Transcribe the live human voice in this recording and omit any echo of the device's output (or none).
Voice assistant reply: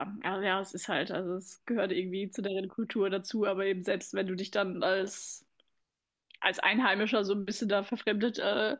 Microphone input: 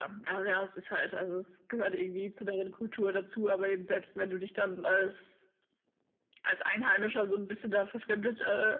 none